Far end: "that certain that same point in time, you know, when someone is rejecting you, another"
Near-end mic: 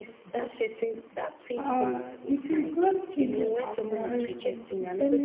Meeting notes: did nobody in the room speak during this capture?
No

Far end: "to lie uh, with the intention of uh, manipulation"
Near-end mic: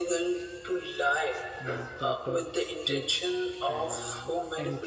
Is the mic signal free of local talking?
No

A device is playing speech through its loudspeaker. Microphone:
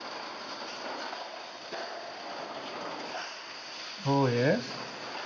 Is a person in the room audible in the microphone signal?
Yes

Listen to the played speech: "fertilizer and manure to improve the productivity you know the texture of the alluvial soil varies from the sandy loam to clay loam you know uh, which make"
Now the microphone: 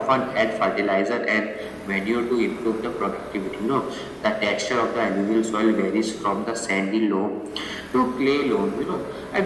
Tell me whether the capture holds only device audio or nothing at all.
Yes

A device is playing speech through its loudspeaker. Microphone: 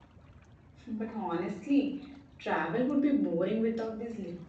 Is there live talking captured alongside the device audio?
Yes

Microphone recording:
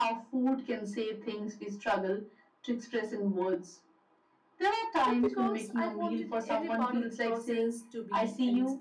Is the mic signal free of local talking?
No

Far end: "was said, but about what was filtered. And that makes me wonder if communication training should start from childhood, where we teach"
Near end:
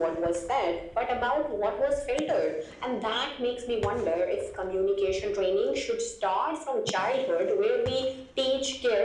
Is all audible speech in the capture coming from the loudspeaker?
Yes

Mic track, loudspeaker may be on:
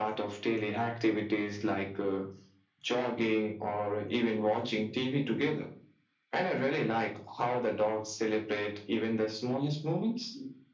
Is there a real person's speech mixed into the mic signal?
No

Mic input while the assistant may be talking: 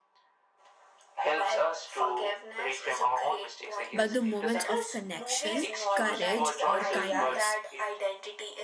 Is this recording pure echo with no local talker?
No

